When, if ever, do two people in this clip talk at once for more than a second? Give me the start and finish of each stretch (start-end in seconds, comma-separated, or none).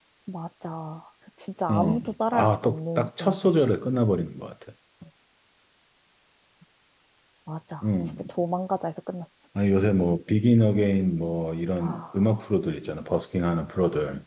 1.7-3.4